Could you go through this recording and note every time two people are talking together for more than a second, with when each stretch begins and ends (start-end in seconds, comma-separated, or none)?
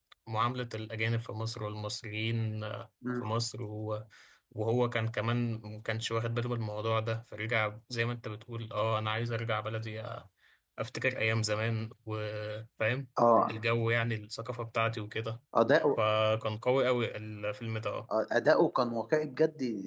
none